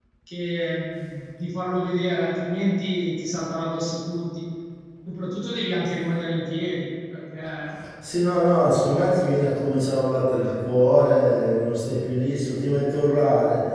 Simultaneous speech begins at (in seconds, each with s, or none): none